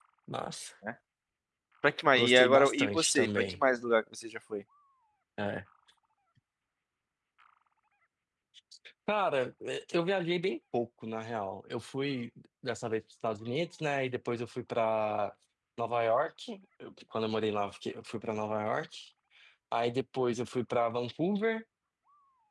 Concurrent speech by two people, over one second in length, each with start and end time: 2.2-3.5

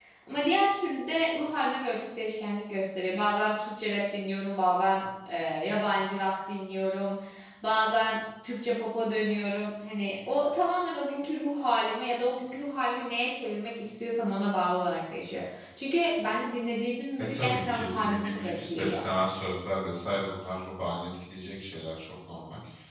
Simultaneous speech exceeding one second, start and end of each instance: 17.3-19.0

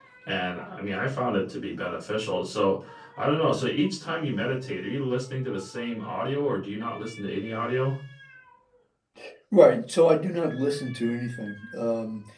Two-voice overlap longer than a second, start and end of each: none

